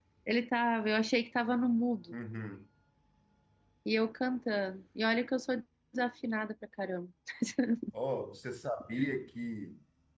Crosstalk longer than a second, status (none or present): none